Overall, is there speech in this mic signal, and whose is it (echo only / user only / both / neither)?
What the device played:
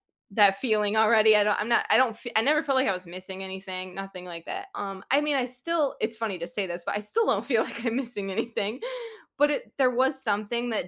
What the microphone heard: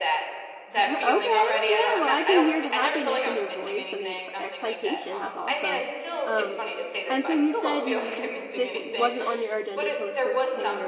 both